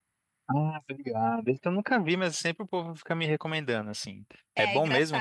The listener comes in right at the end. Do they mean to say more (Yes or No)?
Yes